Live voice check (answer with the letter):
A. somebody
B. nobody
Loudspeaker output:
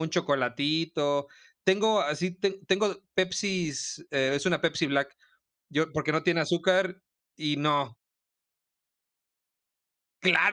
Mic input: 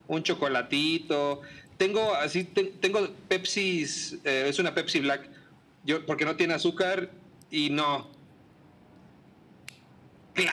B